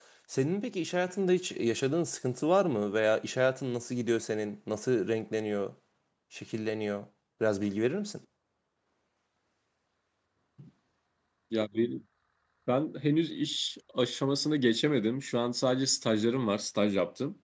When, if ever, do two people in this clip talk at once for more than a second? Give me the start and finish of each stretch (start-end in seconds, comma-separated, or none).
none